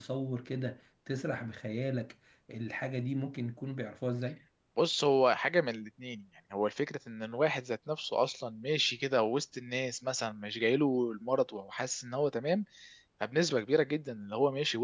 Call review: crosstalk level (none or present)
none